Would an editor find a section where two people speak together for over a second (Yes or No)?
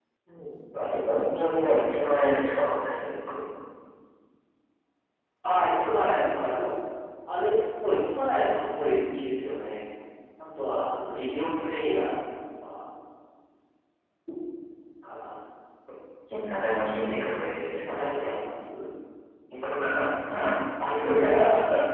No